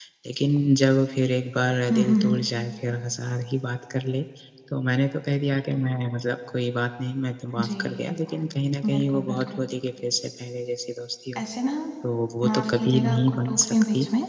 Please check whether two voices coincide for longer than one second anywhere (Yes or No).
Yes